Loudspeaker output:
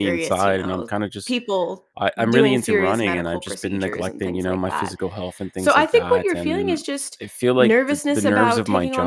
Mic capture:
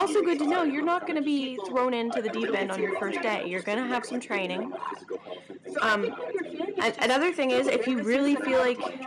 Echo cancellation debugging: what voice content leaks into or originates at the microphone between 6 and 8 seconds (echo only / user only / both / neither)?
both